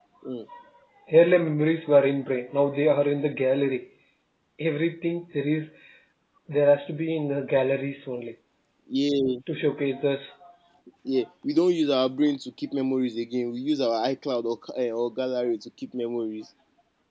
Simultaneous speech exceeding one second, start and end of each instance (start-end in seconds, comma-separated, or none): none